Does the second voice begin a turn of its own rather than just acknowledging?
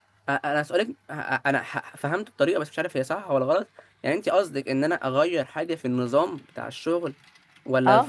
Yes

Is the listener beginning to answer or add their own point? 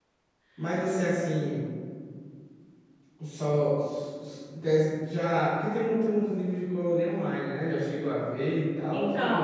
Yes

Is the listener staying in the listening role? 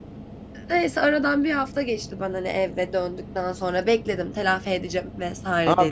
No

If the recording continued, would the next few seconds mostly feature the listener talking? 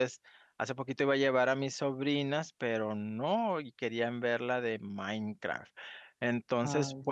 No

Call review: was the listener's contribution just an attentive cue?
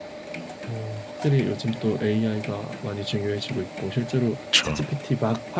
Yes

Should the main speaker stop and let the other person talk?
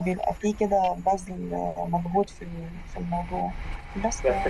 Yes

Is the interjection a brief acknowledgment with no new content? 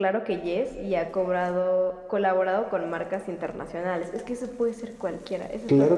No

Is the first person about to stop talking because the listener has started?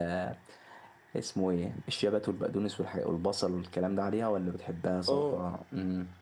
No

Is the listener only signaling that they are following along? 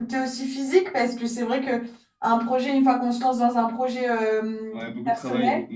No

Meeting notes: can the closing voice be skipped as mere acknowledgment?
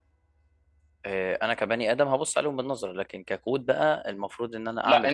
Yes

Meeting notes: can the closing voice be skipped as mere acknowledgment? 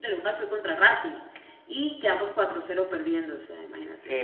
No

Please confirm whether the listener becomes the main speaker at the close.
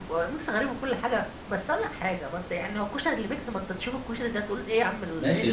Yes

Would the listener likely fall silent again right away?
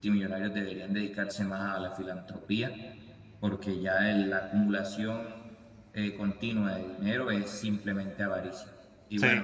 Yes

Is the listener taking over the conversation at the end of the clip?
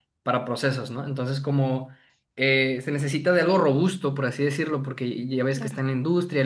No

